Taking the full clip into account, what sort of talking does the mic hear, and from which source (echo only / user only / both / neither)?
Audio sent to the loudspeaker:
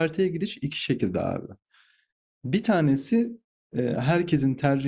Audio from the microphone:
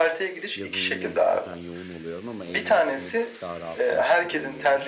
both